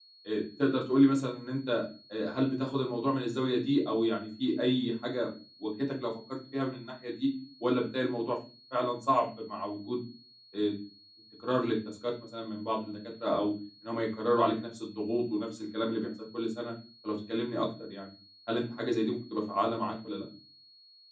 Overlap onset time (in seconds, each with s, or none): none